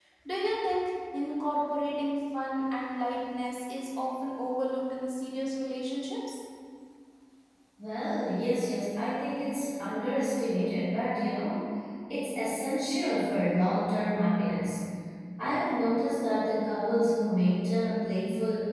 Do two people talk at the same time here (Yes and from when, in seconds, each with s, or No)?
No